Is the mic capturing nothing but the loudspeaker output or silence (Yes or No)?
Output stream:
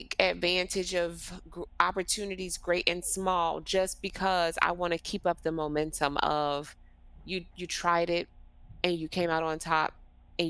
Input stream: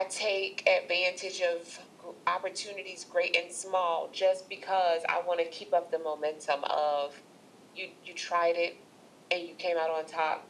Yes